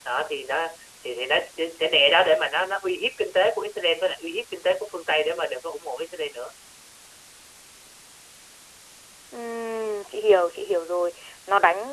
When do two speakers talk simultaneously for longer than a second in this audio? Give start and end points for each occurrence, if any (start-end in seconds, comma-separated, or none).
none